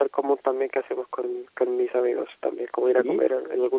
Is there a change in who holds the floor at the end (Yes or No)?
No